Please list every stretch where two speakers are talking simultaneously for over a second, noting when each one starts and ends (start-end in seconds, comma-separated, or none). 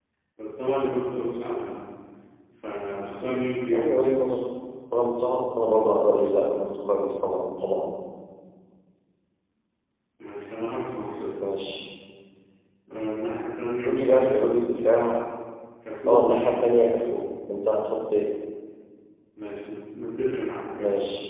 none